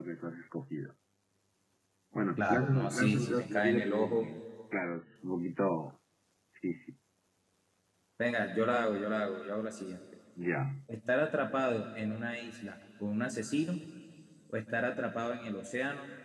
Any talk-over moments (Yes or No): Yes